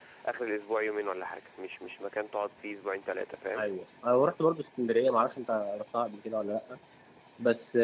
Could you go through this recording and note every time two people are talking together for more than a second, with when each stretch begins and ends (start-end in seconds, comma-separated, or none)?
none